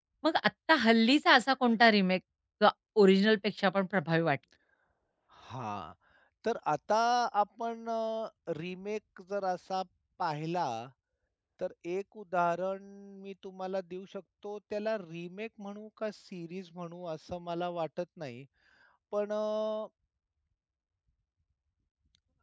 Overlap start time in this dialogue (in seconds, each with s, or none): none